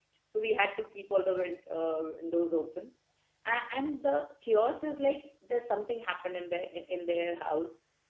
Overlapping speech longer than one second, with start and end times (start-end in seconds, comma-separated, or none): none